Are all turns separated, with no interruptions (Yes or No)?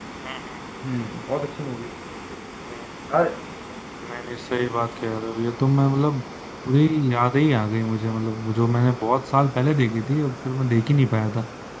Yes